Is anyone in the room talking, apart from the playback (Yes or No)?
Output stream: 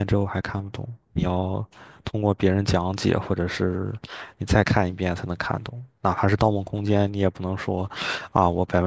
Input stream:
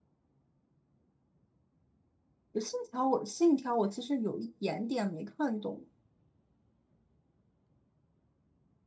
Yes